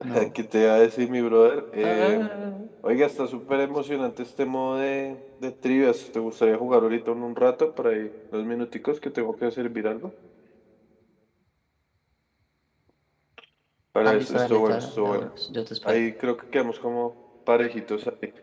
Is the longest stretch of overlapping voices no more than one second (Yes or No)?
No